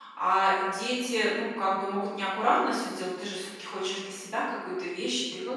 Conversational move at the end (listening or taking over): listening